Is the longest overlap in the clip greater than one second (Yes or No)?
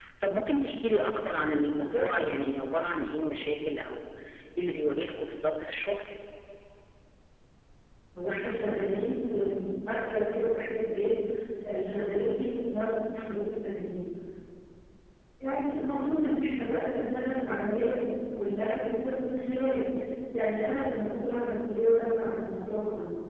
No